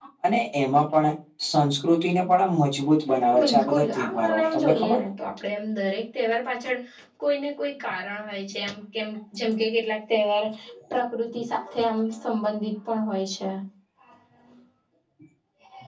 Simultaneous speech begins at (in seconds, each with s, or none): 3.3 s